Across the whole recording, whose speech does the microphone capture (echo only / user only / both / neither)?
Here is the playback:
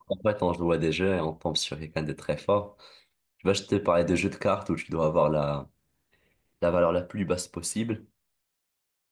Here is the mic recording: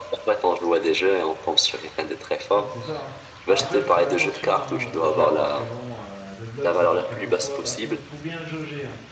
both